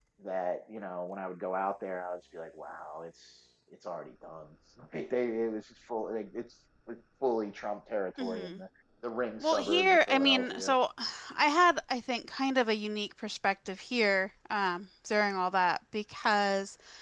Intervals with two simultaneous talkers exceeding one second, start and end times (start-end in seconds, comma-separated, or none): 9.4-10.8